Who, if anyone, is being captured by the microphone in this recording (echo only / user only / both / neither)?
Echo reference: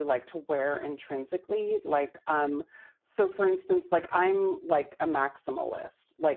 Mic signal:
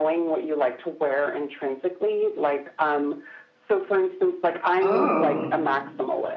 both